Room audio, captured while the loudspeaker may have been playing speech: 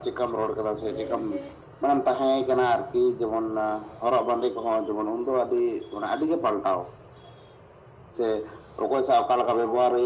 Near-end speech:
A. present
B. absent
A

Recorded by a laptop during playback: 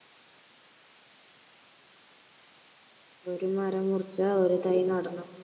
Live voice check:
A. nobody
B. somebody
B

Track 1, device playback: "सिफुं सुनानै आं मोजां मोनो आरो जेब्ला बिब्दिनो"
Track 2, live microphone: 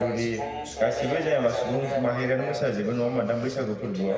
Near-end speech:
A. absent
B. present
B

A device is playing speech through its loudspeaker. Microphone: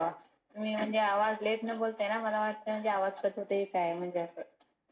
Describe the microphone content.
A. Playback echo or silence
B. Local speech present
A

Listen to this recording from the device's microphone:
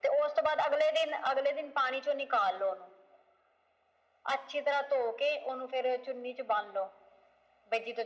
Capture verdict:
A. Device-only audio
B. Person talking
A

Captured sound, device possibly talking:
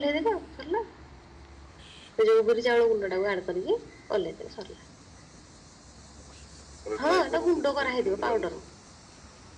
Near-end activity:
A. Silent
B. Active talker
B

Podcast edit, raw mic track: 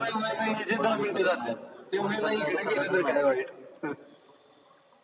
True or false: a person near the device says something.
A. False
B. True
A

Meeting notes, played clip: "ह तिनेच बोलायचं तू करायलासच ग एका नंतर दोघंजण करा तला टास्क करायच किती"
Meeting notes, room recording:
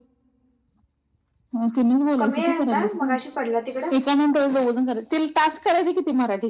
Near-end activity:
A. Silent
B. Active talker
B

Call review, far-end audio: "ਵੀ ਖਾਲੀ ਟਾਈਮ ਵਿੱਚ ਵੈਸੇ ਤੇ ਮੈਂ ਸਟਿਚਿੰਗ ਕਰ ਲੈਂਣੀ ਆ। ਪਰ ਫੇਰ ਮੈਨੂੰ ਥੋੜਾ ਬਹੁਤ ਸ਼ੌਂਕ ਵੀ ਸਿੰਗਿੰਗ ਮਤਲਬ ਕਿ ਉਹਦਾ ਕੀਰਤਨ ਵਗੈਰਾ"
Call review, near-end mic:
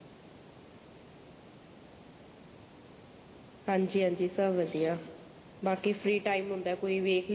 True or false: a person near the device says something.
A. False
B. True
B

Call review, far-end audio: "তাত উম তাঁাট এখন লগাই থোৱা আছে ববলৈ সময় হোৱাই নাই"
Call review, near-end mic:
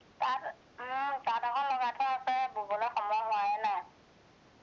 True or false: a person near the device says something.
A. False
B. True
A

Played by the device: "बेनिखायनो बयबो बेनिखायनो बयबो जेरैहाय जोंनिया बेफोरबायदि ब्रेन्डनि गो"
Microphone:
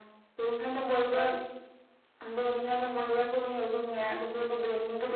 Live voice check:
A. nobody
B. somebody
A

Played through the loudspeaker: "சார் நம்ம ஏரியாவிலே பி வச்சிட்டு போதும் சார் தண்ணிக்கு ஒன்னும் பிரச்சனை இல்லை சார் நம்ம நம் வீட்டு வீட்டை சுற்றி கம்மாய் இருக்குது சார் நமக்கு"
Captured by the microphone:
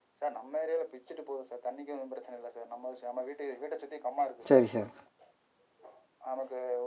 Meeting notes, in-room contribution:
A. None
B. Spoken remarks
B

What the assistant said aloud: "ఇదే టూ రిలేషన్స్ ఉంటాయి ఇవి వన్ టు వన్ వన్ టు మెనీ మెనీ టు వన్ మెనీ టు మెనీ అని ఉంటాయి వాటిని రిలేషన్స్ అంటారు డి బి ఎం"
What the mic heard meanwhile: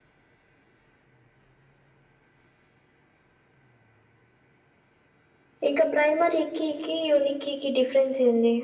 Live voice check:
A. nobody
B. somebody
B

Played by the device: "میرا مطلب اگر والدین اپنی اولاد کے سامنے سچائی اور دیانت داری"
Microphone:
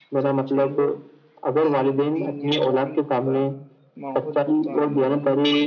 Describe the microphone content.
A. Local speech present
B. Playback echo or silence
A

